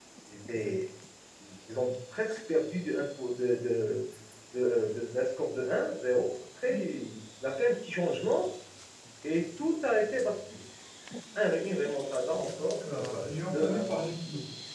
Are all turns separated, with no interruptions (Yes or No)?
No